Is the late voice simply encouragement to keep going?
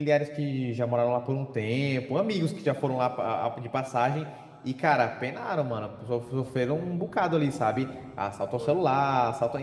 Yes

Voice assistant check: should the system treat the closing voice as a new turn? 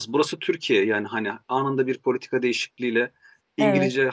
No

